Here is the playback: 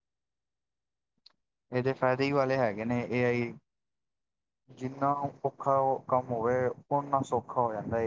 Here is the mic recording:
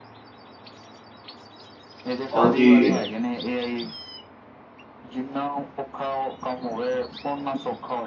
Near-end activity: present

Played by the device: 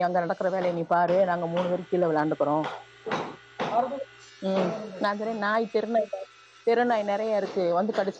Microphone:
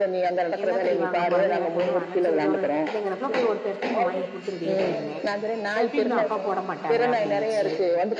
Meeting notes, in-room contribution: present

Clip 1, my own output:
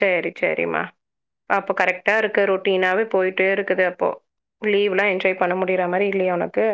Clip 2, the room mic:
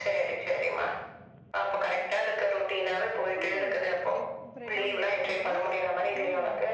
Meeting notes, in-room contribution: present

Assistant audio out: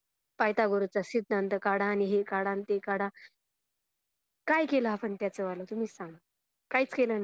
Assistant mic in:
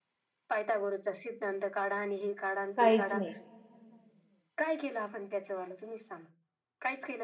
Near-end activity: present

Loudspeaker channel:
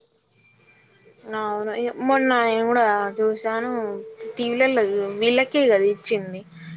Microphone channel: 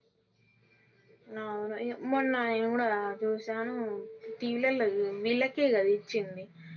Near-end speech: none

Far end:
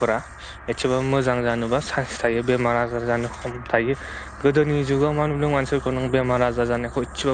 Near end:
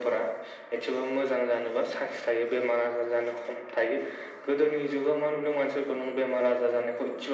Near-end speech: none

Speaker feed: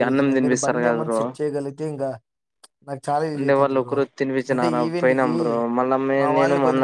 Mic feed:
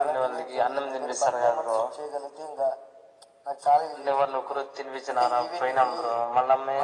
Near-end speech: none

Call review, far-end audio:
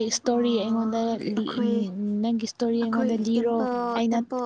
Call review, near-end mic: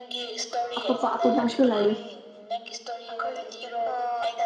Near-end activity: present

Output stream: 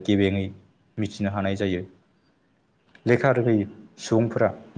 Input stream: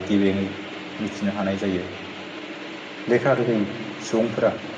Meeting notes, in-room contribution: none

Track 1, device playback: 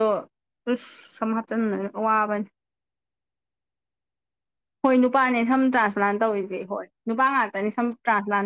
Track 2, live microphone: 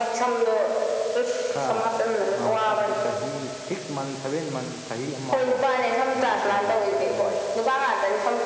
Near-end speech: present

